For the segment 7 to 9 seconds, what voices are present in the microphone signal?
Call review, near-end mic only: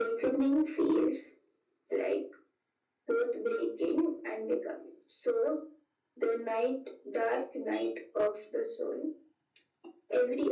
echo only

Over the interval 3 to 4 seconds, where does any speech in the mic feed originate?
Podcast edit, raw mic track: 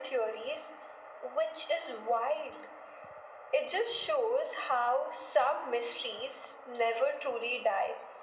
echo only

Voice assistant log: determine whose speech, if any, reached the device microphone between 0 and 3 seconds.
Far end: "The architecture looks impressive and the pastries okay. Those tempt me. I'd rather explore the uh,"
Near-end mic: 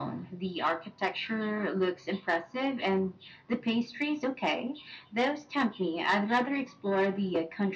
echo only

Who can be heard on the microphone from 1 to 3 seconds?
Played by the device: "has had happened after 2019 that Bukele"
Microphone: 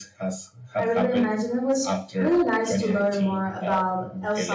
both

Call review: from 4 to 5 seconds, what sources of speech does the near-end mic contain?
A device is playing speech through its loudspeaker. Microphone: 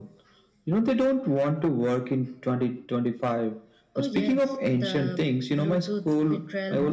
echo only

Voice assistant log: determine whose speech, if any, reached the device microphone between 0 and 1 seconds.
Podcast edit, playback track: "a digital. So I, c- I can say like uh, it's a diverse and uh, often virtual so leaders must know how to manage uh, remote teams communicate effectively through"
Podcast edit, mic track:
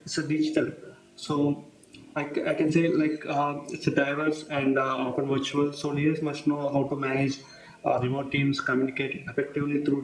echo only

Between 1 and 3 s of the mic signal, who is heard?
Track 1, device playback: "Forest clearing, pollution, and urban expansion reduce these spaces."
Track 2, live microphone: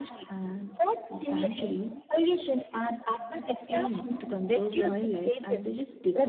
both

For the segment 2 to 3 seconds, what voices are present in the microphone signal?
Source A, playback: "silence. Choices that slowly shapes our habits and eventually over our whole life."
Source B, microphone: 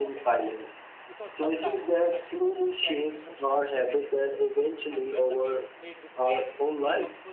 both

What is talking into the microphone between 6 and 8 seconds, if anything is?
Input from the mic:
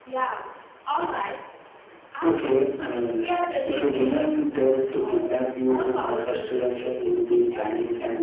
echo only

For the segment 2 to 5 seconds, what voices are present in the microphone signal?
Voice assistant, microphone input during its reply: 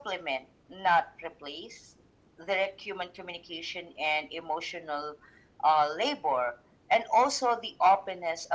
echo only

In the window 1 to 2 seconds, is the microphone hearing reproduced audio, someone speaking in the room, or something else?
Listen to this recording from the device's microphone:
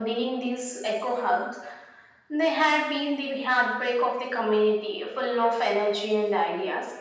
echo only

